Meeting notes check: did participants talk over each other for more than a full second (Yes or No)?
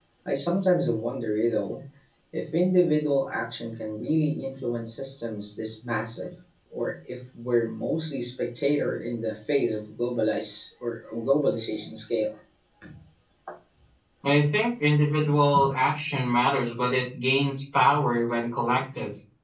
No